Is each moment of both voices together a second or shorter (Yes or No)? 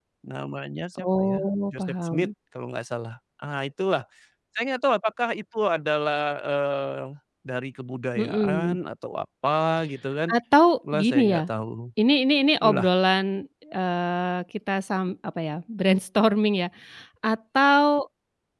No